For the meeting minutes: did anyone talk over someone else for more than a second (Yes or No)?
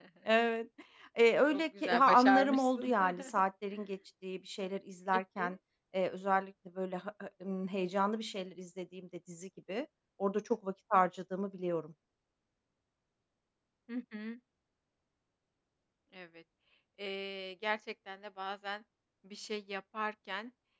Yes